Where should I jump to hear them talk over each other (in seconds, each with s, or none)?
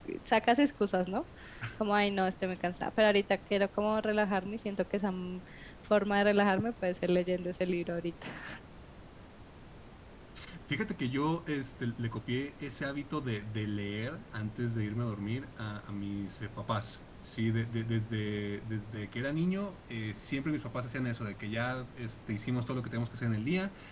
none